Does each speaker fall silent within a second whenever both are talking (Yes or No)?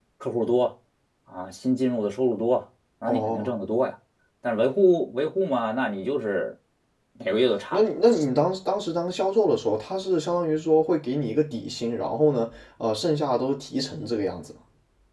Yes